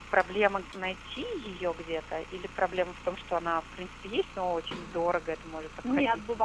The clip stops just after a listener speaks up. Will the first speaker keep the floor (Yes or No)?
No